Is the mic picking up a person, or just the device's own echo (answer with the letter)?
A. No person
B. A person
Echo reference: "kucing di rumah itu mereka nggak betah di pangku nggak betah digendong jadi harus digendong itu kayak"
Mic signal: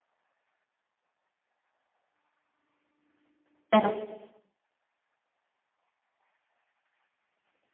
B